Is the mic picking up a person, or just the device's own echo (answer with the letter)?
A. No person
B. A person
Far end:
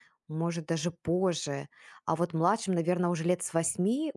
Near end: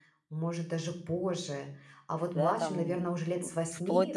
B